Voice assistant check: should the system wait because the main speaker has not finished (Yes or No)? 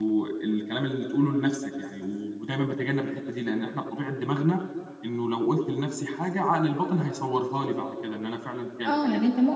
No